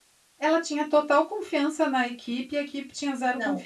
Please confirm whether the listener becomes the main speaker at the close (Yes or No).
Yes